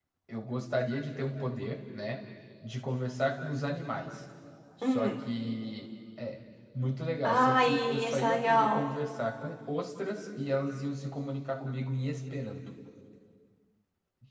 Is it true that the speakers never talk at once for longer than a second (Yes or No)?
No